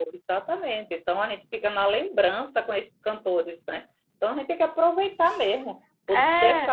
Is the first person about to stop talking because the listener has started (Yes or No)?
No